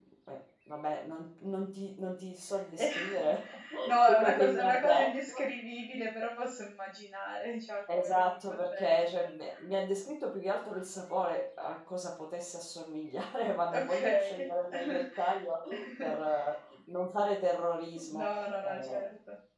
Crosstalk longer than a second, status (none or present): present